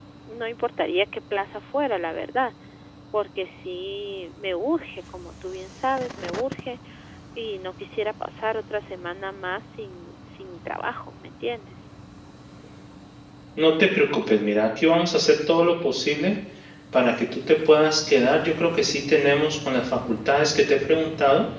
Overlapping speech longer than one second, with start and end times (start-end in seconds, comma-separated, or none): none